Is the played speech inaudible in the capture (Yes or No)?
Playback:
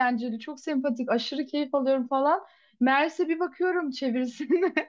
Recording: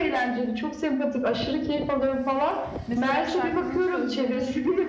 No